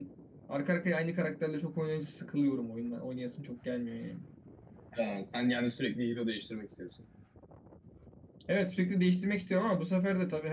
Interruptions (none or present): none